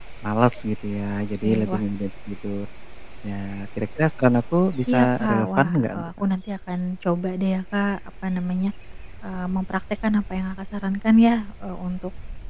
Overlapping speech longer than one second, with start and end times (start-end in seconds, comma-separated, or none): 4.9-6.1